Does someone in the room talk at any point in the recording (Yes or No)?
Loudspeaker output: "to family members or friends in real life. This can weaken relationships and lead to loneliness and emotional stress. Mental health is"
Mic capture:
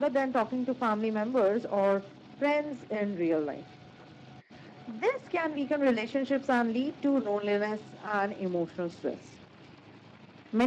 No